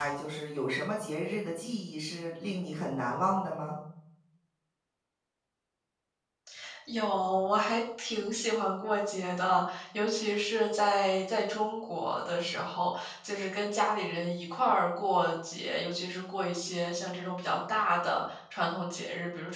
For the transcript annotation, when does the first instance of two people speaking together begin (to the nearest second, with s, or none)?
none